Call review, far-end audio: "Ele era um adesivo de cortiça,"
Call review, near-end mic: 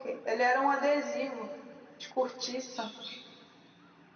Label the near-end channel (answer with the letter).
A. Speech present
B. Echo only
B